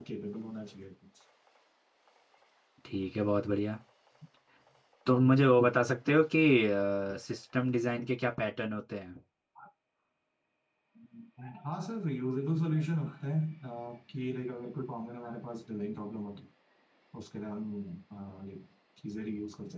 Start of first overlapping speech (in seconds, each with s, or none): none